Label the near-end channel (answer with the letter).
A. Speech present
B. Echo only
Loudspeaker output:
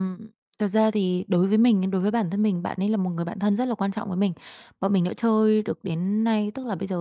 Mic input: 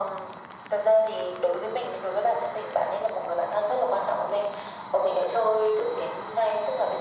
B